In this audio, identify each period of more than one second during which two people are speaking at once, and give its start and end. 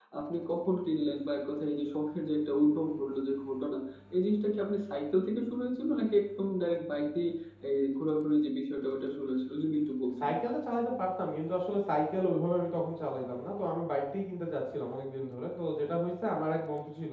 none

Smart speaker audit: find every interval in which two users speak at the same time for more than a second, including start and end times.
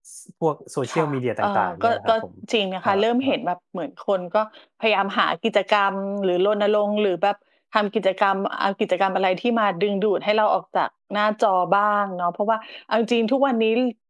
0.9-2.1

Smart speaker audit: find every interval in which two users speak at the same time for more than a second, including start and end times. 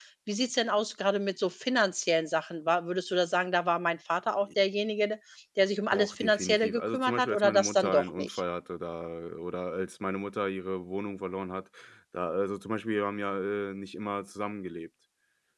5.9-8.4

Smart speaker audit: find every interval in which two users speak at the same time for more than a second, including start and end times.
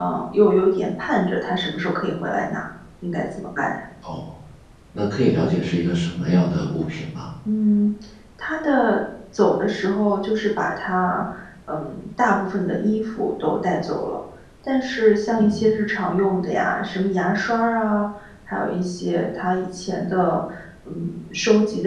none

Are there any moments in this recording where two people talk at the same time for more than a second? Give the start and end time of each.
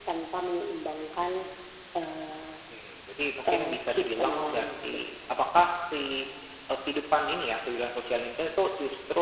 3.5-5.1

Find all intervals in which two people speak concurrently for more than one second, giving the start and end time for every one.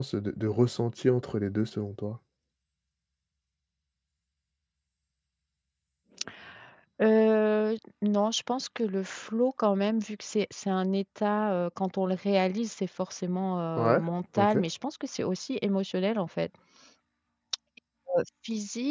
none

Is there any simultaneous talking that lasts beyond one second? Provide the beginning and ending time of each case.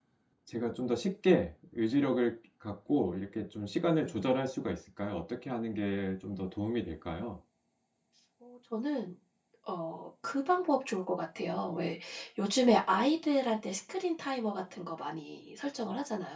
none

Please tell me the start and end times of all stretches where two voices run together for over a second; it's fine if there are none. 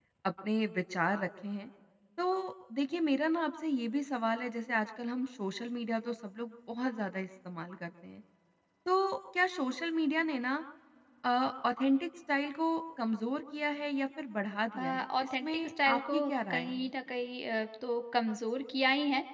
14.8-16.9

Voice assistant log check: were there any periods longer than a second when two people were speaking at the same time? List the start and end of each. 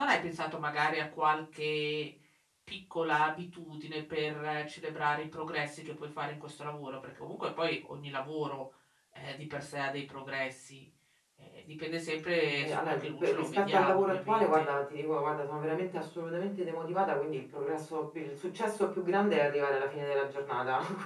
12.4-14.7

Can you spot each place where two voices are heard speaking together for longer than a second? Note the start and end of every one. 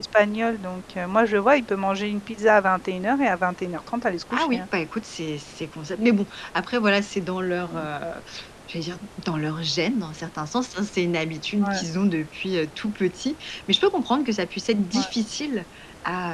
none

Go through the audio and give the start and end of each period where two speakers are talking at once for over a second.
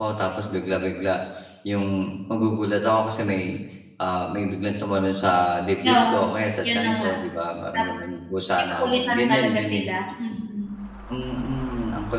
8.5-9.9

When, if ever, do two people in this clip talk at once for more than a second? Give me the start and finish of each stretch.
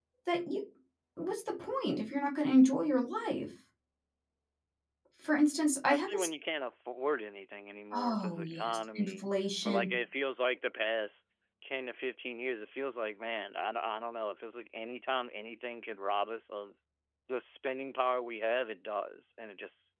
7.9-9.2

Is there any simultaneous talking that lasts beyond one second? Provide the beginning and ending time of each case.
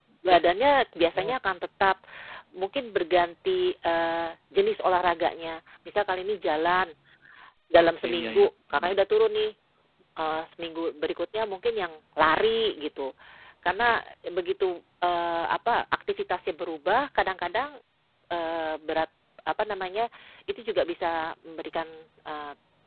7.8-9.0

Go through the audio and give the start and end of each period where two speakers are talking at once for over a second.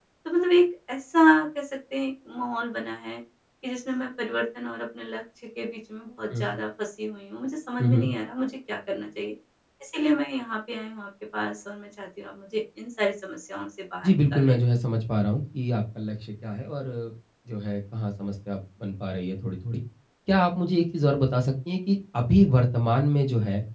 none

